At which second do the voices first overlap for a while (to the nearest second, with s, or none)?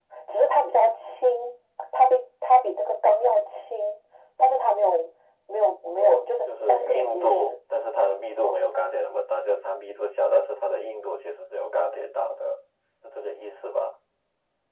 6 s